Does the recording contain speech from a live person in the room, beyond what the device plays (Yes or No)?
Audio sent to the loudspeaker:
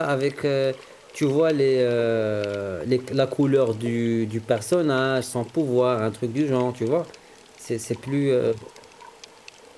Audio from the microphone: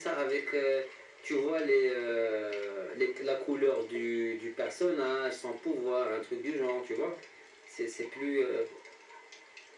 No